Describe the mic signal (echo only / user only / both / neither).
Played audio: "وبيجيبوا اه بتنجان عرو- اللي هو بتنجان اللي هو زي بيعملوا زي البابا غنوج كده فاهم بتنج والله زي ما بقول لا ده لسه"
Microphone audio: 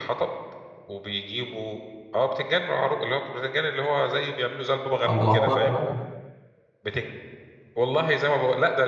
both